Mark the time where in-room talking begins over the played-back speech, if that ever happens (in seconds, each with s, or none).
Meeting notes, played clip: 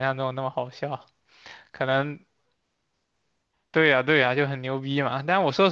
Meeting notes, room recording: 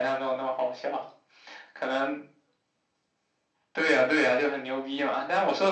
none